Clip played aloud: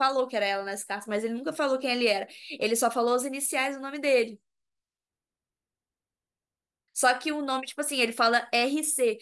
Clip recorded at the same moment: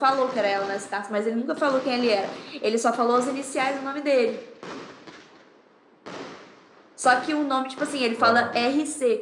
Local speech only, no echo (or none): Rorar.